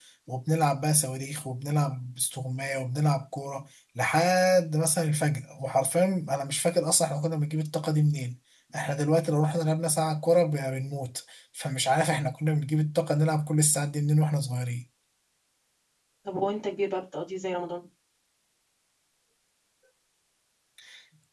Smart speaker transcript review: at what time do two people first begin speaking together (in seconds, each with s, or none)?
none